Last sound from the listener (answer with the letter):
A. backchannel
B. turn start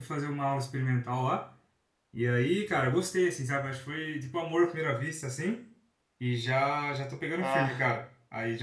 A